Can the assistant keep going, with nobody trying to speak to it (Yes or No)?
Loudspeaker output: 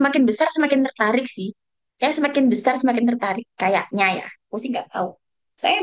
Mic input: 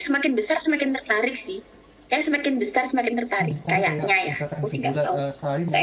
No